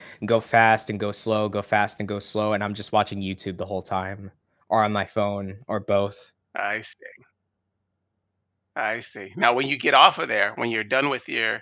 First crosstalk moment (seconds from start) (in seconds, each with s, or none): none